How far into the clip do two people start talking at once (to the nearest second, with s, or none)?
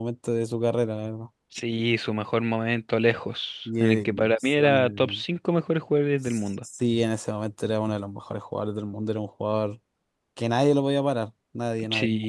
4 s